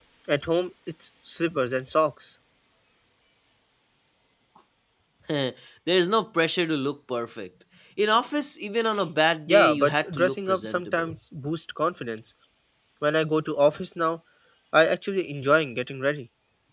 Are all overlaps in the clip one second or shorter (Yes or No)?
No